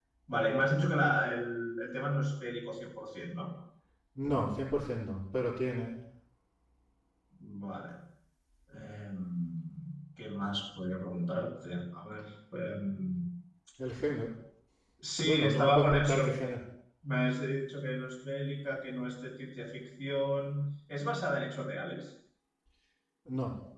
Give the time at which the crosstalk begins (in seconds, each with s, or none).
15.2 s